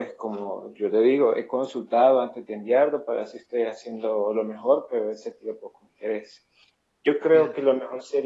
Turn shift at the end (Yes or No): No